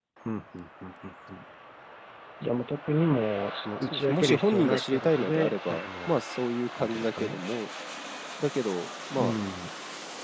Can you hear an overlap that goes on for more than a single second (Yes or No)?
Yes